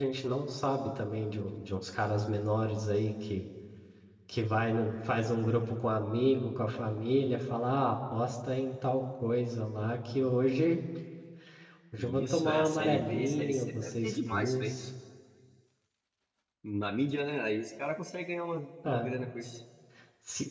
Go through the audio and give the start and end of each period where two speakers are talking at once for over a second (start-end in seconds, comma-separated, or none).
12.0-14.7